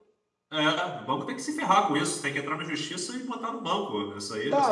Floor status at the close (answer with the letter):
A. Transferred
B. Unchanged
A